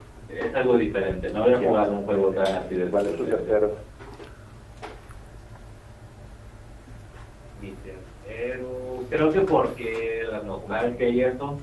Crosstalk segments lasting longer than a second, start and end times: 1.5-3.7

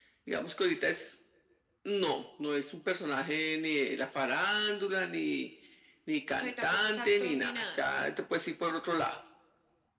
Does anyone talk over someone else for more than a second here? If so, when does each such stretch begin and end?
6.3-7.8

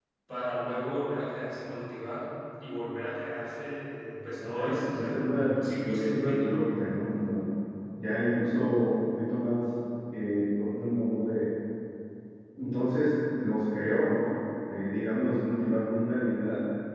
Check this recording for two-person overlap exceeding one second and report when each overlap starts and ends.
4.4-6.5

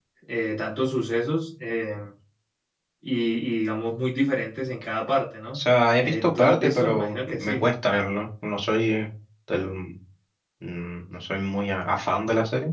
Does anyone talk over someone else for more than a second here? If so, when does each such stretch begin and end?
6.0-7.5

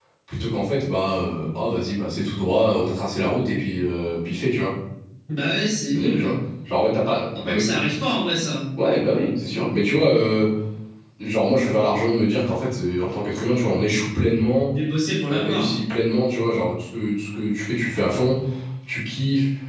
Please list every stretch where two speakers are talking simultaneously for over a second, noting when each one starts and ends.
none

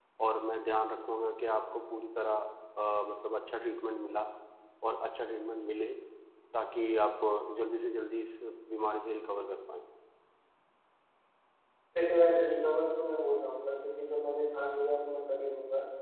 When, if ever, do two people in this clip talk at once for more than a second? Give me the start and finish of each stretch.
none

